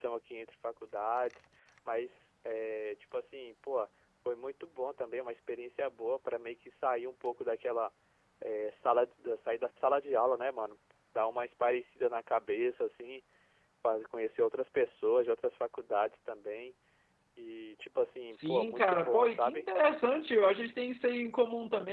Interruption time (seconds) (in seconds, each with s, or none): 18.3 s